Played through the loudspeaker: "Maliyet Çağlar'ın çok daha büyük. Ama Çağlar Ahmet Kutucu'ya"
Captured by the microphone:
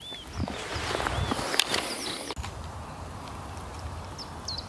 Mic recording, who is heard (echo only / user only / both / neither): neither